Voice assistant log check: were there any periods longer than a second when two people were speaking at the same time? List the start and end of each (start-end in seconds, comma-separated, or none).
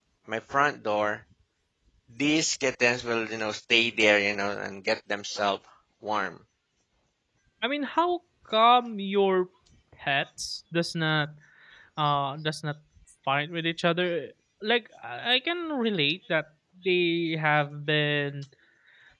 none